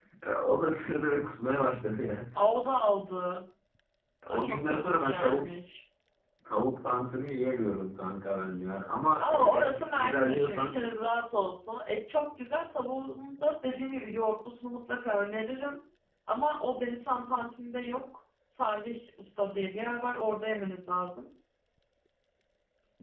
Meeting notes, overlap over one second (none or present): present